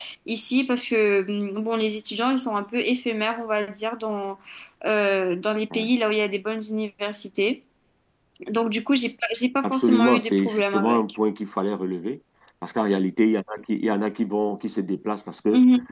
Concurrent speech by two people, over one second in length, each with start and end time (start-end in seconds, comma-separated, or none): 9.6-11.1